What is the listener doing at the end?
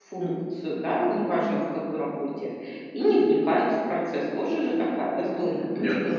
taking over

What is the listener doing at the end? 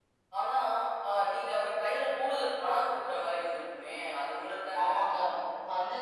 taking over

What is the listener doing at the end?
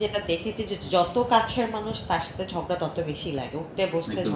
taking over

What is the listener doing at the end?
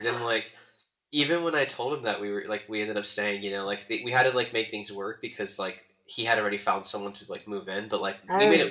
listening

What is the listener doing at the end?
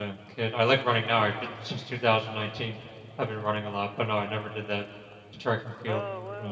taking over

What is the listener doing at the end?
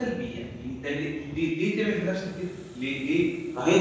taking over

